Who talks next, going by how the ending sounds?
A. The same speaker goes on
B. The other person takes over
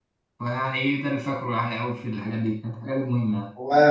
B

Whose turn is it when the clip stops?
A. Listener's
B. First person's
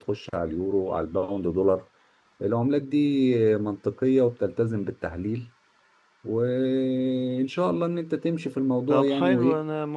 A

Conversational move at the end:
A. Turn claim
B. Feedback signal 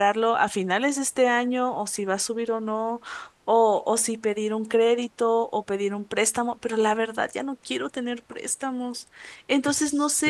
A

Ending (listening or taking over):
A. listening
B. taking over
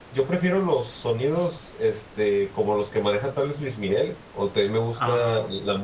A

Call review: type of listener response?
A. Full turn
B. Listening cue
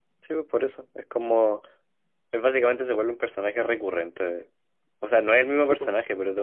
B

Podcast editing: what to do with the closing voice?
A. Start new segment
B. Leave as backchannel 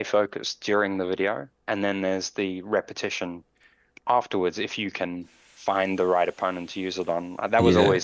B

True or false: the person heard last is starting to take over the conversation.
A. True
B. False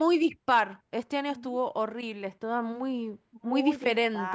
A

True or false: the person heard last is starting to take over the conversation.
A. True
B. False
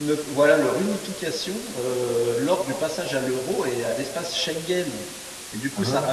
B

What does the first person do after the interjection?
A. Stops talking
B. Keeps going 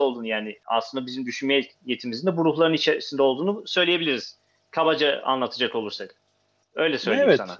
A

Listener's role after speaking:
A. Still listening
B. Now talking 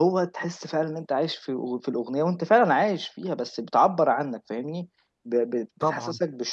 A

